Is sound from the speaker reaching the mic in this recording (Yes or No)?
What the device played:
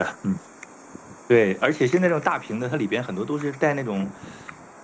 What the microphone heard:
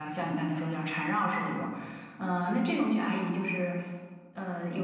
No